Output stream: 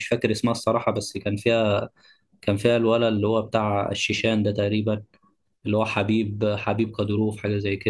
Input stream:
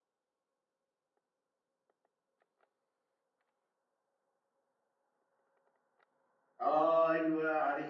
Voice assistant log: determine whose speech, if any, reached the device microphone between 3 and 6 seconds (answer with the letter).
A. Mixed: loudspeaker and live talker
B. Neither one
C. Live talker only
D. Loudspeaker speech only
B